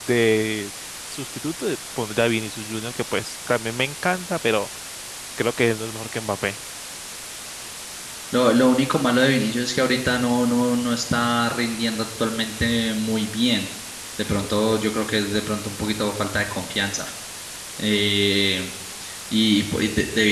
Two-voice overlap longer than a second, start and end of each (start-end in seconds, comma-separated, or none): none